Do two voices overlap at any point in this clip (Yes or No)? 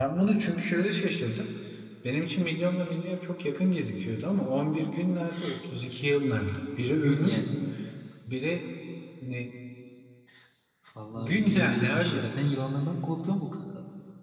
Yes